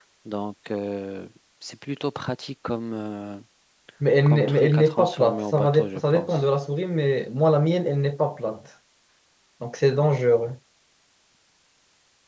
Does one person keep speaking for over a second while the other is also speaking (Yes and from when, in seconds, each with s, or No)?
Yes, from 4.3 s